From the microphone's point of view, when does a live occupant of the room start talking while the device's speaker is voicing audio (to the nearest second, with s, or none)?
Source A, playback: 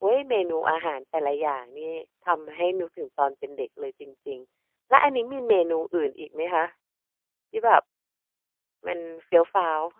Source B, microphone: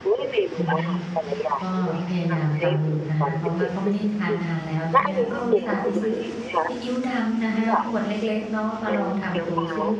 1 s